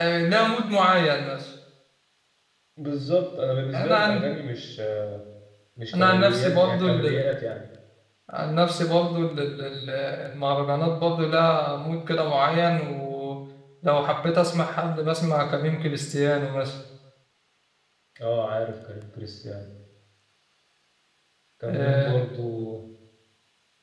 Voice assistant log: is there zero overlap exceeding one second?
No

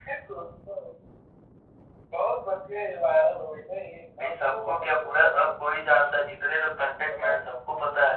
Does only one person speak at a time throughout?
No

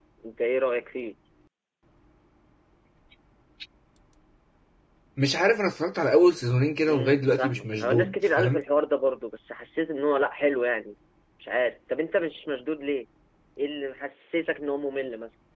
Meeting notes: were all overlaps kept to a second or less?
No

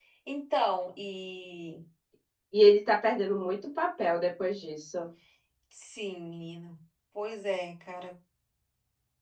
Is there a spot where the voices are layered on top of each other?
No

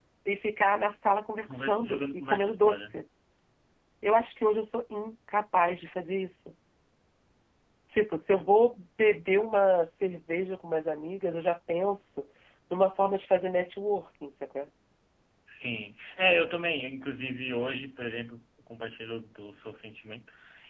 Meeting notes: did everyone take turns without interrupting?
No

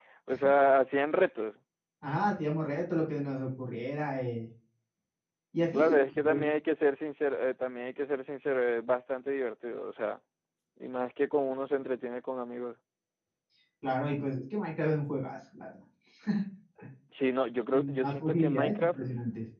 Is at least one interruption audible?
Yes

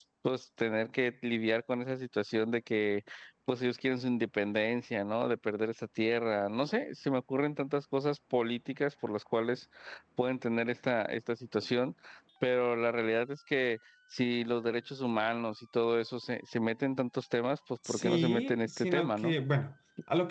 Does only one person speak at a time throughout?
No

